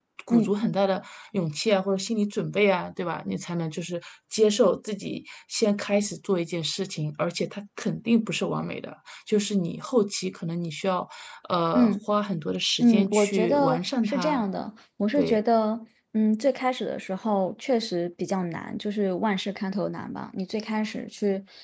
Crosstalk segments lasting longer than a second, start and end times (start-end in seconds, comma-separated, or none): 12.8-14.4